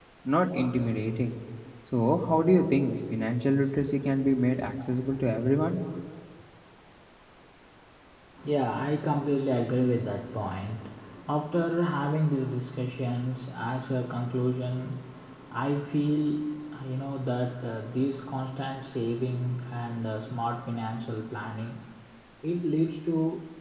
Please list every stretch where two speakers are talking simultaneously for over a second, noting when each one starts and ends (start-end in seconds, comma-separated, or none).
none